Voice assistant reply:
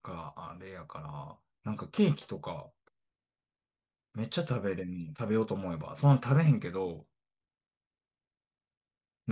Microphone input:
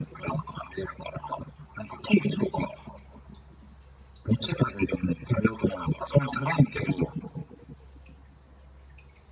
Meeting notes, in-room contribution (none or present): none